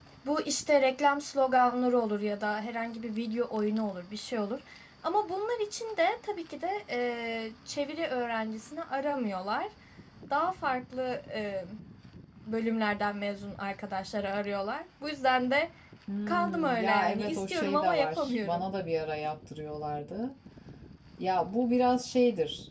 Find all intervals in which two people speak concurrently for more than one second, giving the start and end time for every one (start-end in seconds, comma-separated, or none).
16.3-18.6